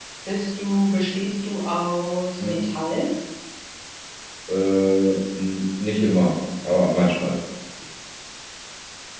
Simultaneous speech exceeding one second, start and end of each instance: none

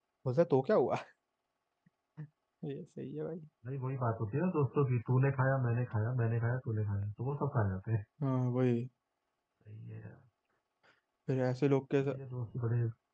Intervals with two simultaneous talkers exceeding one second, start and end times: none

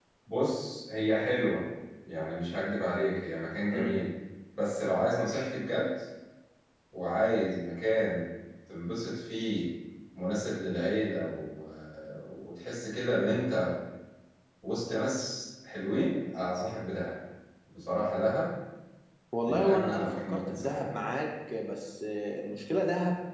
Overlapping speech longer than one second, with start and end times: 19.4-20.8

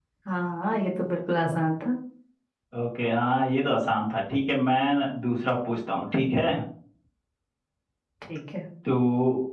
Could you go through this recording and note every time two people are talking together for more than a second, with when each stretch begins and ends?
none

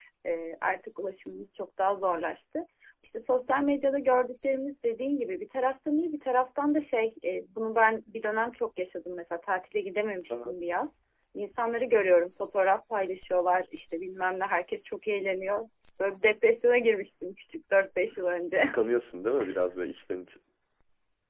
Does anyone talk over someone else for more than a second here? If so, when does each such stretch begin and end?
none

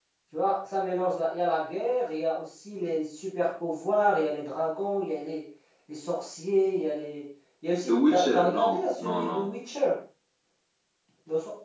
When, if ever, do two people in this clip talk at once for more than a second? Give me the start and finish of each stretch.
7.9-9.5

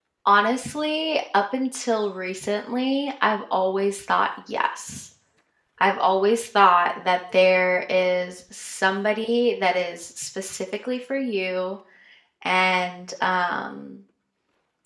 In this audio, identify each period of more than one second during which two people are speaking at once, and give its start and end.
none

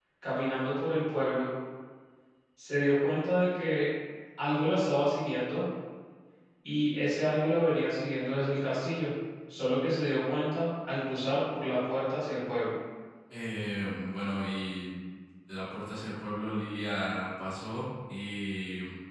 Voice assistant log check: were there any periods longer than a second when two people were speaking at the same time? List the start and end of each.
none

